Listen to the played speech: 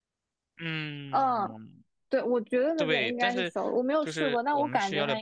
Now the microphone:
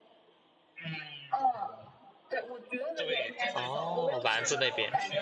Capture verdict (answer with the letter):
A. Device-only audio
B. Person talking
B